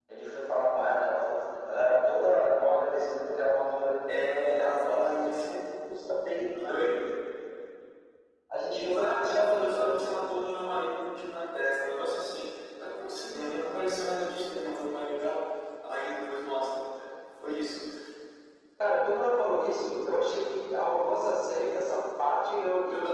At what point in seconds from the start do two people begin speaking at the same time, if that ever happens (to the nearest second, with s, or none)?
4 s